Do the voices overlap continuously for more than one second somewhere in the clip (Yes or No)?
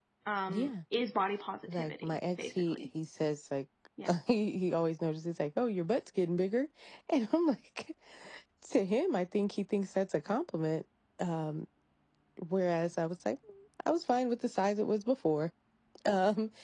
Yes